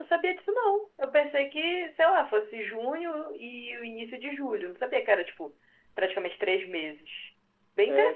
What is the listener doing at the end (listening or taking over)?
taking over